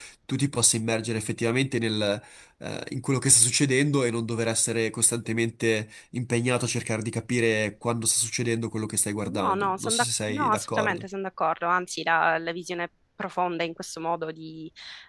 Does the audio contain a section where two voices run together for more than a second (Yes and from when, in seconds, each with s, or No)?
Yes, from 9.2 s